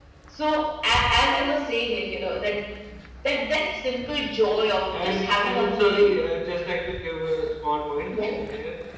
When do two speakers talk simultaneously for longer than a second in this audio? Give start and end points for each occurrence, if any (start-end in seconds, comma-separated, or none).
4.9-6.1